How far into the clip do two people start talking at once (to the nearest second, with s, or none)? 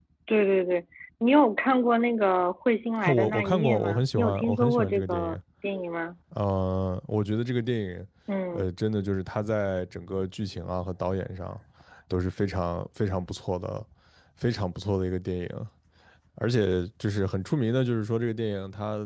3 s